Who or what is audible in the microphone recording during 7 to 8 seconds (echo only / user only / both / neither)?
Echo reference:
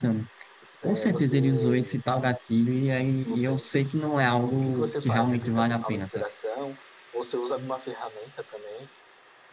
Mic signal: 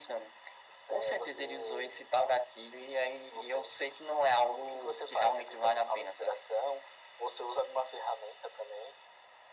echo only